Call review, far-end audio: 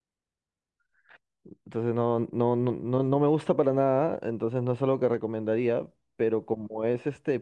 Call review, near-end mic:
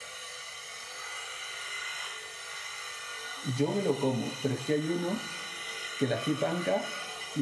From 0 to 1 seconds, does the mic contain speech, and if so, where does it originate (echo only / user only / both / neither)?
neither